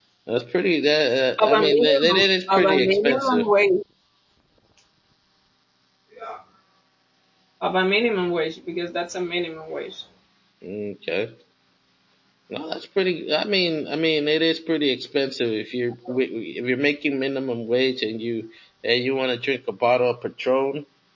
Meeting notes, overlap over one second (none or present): present